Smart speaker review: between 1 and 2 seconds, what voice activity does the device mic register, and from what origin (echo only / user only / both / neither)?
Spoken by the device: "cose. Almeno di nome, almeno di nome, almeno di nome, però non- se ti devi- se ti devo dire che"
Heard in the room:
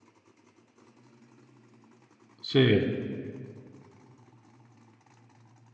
neither